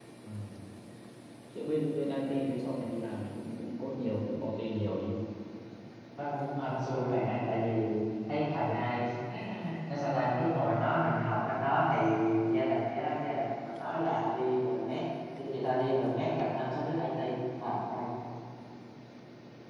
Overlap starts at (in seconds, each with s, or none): none